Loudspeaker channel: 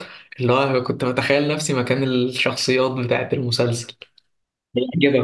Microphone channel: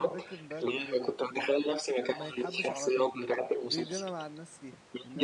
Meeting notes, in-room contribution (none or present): present